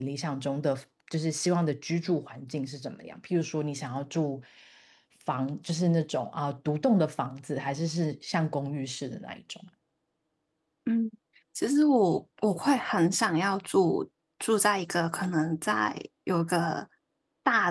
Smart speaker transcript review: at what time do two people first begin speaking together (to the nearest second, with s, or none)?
none